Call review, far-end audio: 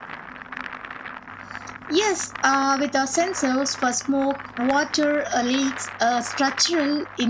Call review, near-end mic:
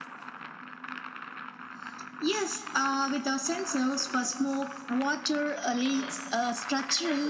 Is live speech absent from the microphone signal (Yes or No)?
No